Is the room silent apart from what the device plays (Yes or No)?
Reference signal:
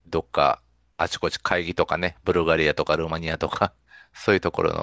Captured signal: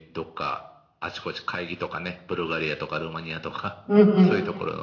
No